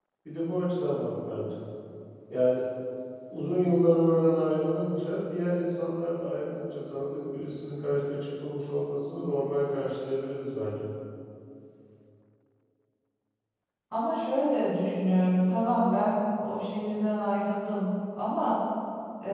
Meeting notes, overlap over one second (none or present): none